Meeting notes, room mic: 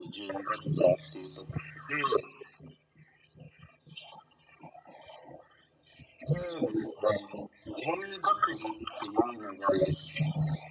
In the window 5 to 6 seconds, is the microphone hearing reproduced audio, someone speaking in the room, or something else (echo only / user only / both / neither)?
neither